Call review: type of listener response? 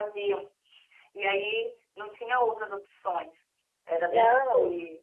taking over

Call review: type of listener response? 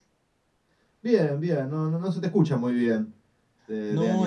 taking over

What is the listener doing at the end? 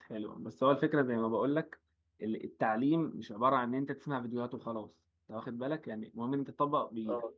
listening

